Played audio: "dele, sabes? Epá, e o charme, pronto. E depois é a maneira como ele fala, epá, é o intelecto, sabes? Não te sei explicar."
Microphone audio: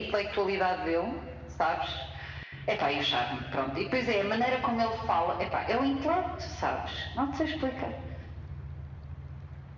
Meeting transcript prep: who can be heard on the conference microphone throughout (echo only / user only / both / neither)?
echo only